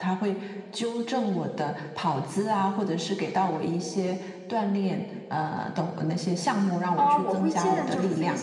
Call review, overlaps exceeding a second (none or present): present